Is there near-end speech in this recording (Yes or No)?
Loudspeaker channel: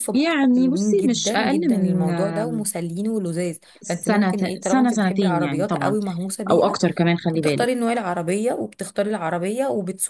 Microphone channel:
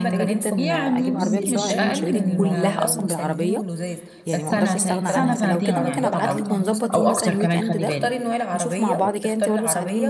Yes